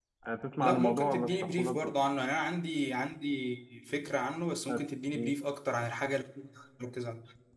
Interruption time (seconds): 1 s

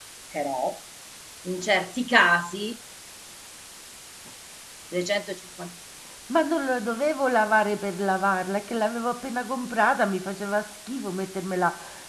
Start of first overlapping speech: none

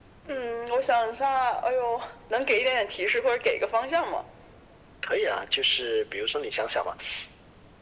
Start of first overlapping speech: none

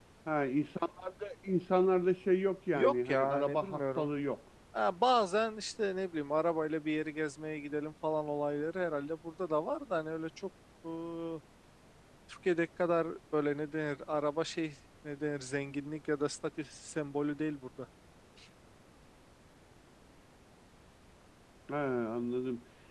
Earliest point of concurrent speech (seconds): 3 s

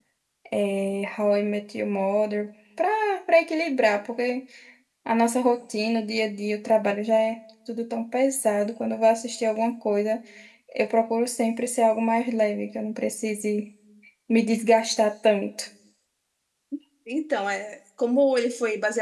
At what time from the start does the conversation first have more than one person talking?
none

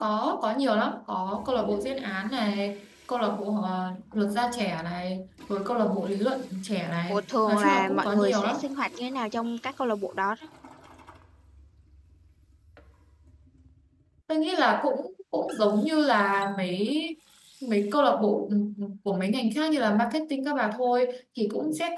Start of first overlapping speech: 7 s

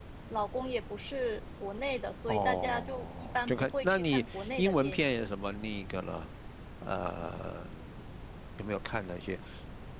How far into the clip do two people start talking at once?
2 s

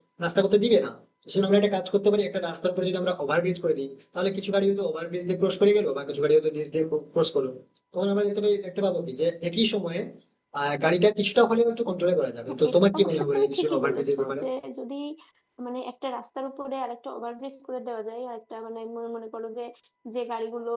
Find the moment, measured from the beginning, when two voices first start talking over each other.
12 s

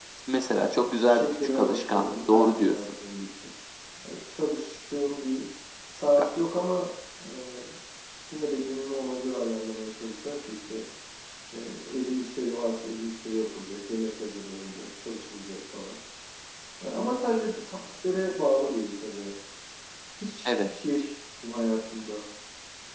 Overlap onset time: 1 s

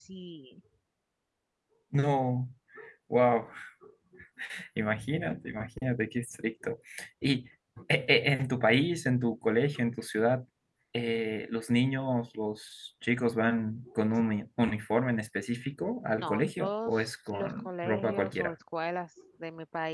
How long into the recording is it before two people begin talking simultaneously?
16 s

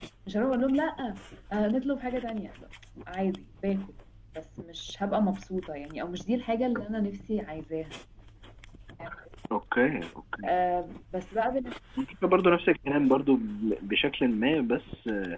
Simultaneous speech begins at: none

